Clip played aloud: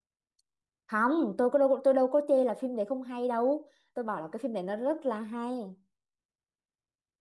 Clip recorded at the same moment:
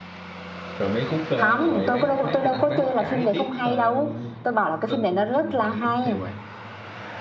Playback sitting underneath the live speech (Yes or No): No